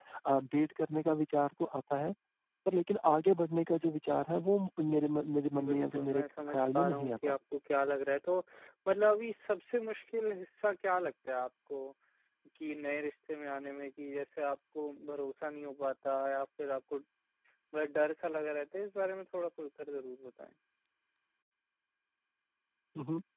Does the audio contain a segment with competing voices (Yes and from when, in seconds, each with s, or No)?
Yes, from 5.5 s